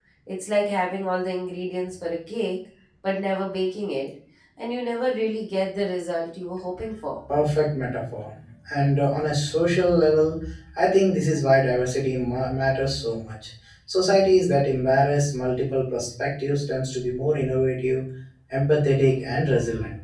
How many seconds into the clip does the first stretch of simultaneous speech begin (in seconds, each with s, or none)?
none